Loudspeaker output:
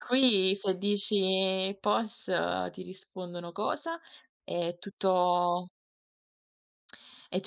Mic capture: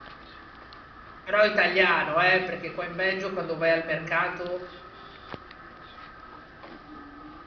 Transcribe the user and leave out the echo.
Però è italiano, eh! Perché qua in Belgio, quando vai al mercato,

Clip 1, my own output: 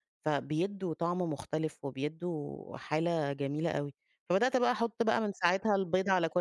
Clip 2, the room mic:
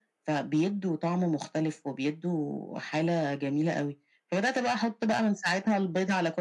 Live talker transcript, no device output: none

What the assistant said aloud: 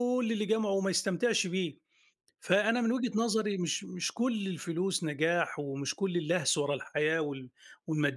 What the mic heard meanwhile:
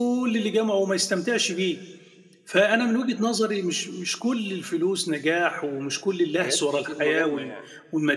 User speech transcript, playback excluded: حاجات كتير مهمَّة يعني.

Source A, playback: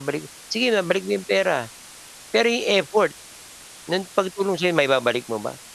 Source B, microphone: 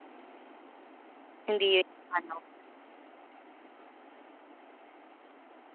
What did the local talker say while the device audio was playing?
Hindi 'yun ano.

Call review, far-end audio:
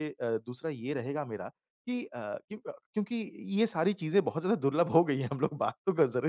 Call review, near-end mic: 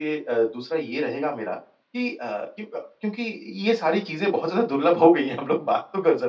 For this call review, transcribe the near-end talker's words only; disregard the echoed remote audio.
none

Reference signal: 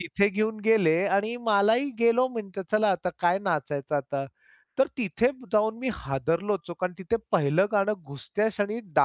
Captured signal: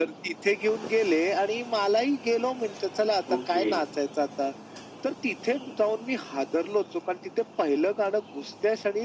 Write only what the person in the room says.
ओके.

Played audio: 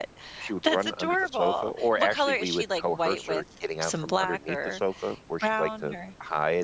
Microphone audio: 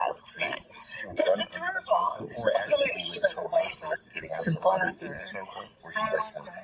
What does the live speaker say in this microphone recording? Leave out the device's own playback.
none

